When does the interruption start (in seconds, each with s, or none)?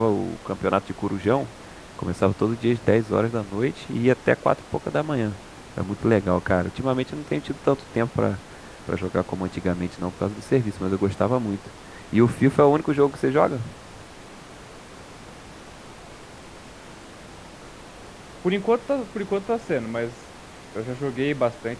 none